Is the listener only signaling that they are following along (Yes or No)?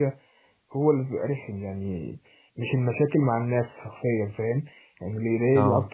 Yes